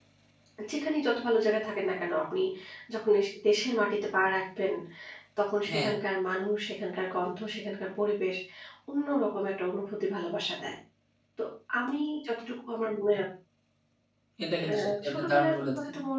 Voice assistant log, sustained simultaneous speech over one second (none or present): present